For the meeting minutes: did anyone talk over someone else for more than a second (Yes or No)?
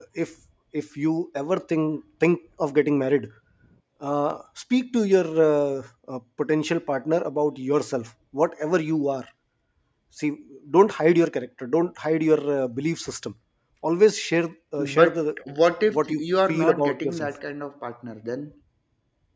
Yes